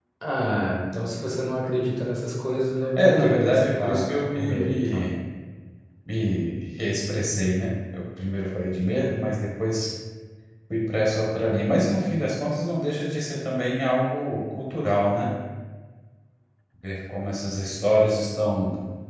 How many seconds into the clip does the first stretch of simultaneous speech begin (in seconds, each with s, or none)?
3.0 s